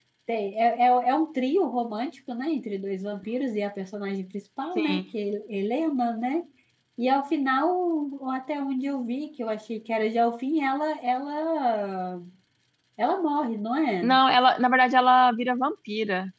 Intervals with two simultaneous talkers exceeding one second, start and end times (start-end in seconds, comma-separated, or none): none